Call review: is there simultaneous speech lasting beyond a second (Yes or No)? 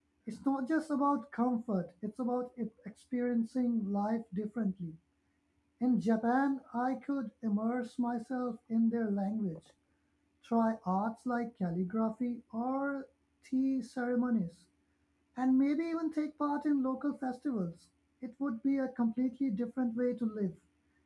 No